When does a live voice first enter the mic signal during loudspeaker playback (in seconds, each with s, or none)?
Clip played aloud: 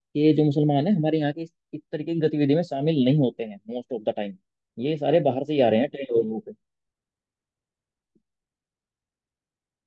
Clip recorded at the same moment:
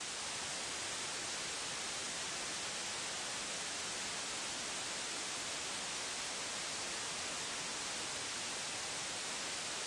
none